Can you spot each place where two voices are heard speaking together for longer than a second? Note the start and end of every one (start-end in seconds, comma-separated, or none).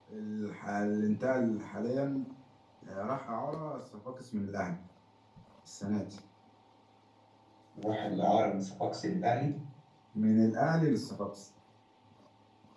none